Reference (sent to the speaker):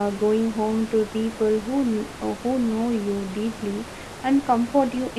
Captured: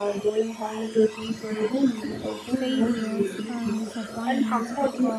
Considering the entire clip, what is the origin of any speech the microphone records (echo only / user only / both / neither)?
both